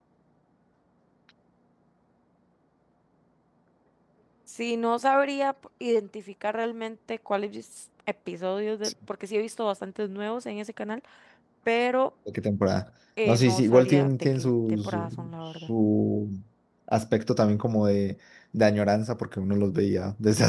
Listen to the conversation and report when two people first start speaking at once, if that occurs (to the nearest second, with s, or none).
13 s